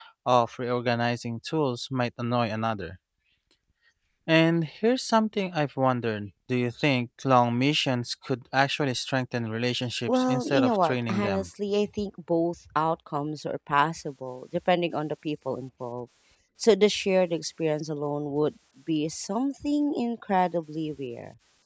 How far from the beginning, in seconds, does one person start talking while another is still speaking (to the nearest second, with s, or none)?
10 s